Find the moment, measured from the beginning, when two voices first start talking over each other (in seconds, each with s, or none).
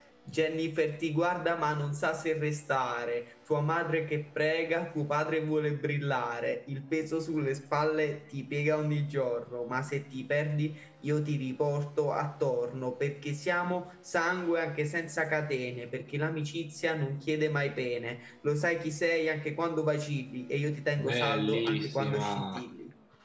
21.0 s